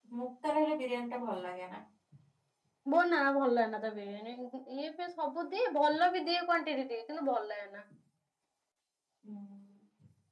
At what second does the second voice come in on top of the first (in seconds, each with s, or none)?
none